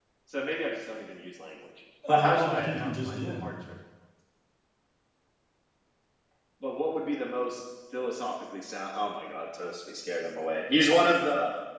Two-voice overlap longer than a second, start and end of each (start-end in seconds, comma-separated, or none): 2.1-3.5